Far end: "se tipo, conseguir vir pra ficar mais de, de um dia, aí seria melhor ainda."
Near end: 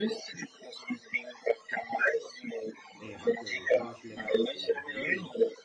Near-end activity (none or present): present